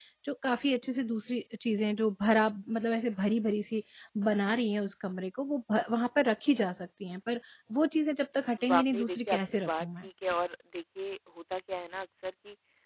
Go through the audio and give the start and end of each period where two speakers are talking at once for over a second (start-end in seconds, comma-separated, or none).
8.7-10.1